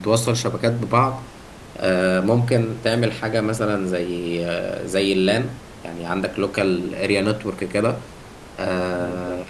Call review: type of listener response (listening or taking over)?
listening